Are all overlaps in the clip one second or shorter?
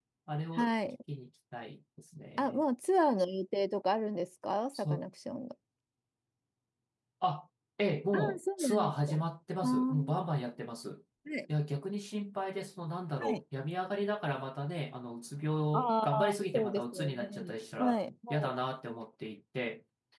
No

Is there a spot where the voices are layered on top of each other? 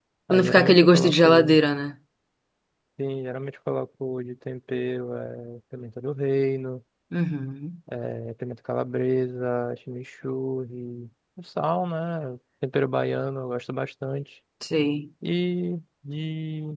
Yes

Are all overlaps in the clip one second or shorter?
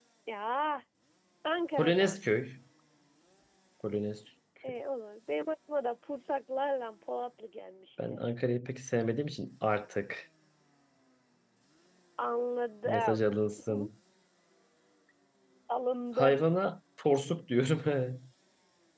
Yes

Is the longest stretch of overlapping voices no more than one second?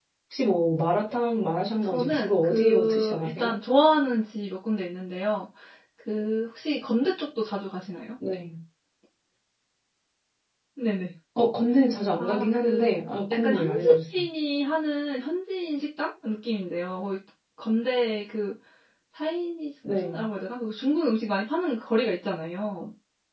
No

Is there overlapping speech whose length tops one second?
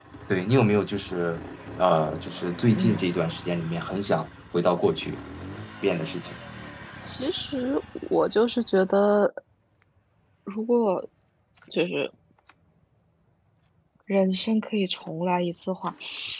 No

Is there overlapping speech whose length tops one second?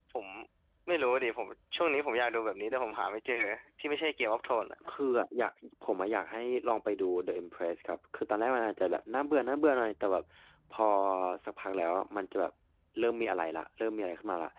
No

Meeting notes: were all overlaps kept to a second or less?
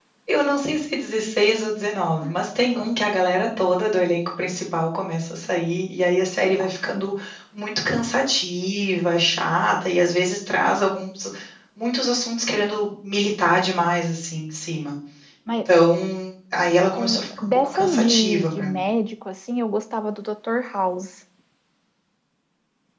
No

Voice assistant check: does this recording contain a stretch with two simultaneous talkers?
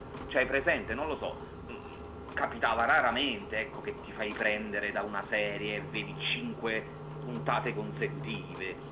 No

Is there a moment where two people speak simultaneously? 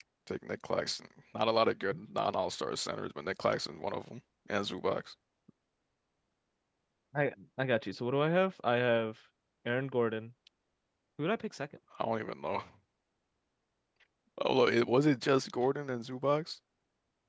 No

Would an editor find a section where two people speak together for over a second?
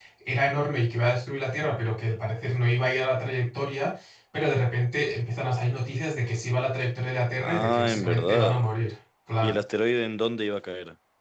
Yes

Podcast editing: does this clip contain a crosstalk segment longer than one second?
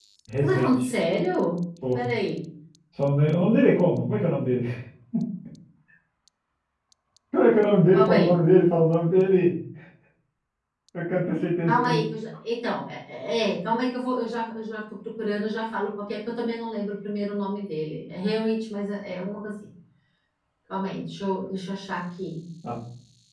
No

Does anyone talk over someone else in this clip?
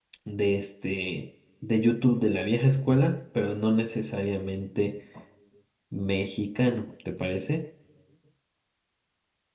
No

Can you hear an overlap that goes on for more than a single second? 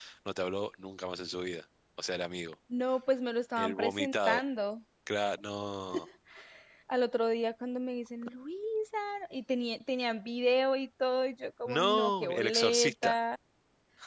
Yes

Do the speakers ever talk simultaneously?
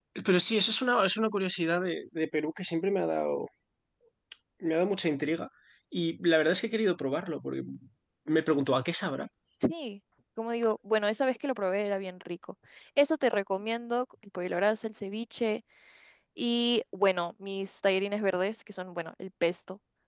No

